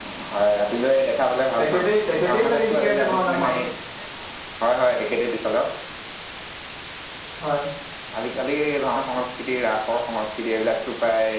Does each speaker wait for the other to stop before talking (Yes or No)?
No